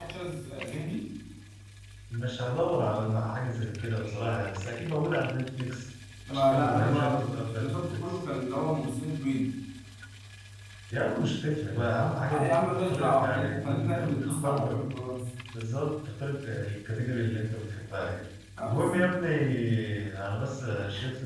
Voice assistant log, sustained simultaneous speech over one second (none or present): present